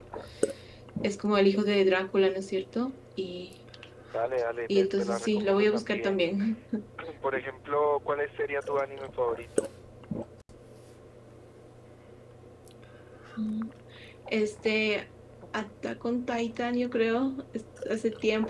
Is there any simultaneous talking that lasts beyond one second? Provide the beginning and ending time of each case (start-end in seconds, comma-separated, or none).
4.7-6.2